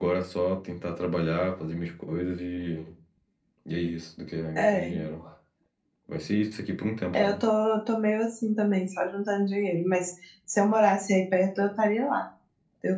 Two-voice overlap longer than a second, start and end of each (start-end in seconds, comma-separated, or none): none